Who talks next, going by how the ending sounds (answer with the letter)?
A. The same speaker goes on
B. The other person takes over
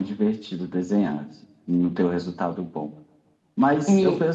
A